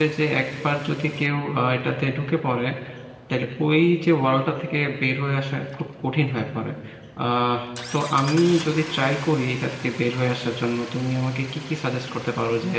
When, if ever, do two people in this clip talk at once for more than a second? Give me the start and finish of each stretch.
none

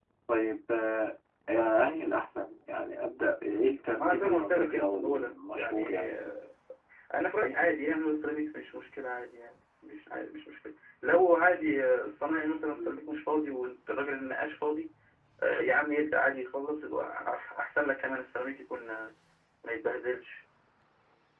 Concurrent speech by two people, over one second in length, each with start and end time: 4.0-6.0

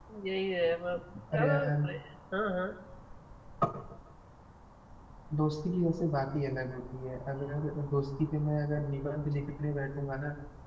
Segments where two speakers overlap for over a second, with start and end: none

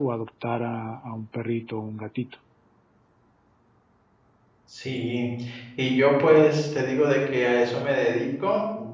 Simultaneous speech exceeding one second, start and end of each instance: none

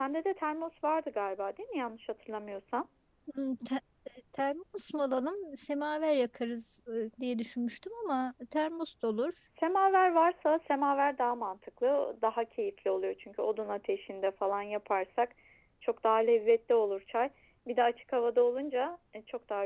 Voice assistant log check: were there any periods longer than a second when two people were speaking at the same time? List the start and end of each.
none

